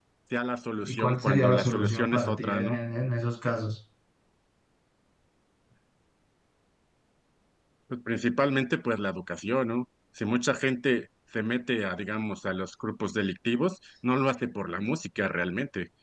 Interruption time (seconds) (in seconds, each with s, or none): 0.8 s